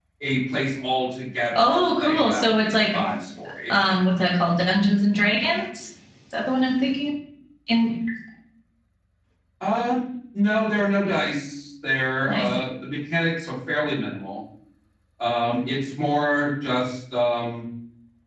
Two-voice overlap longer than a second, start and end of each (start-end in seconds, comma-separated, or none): 1.5-3.0